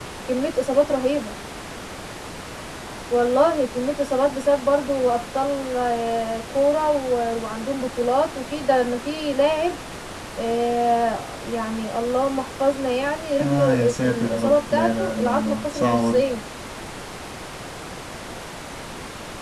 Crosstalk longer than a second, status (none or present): present